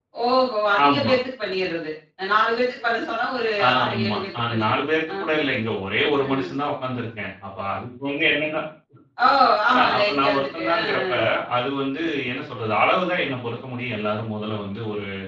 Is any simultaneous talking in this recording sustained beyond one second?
Yes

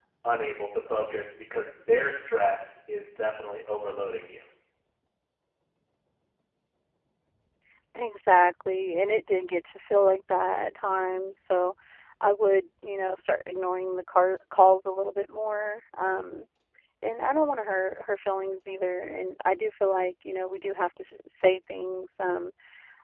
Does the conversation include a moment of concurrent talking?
No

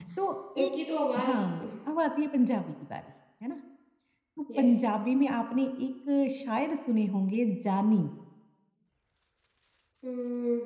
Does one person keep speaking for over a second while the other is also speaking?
No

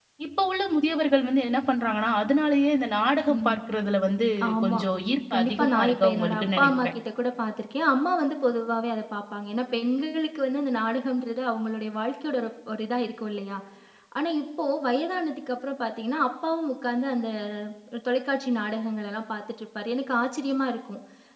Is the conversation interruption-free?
No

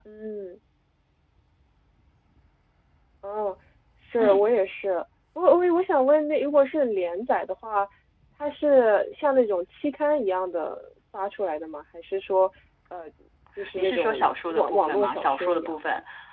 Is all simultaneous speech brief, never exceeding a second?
No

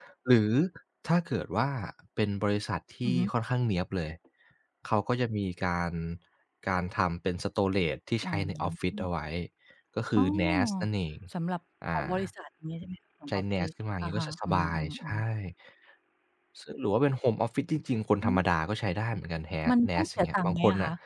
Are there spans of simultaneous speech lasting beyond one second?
Yes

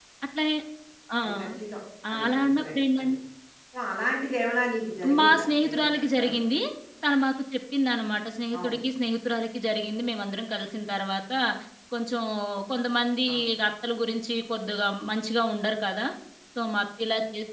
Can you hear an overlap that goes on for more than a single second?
Yes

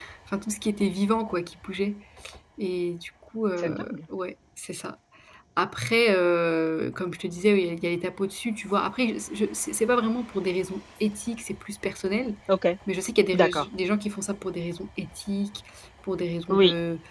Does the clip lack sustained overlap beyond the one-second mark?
Yes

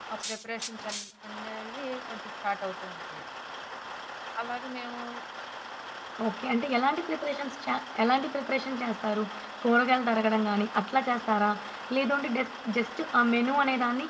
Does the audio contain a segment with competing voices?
No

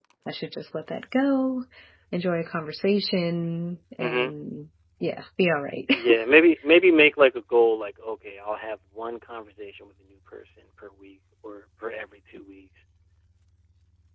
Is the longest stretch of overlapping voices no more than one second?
Yes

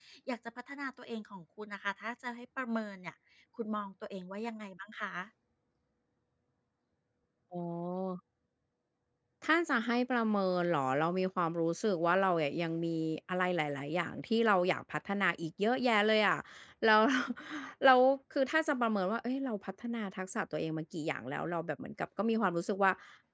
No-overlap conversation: Yes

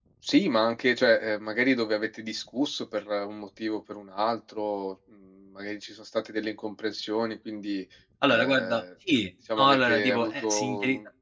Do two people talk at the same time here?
Yes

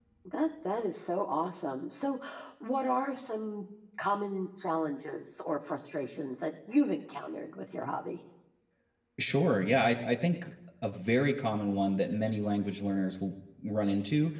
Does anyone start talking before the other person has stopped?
No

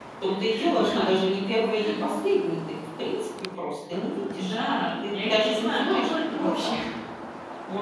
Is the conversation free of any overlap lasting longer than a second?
No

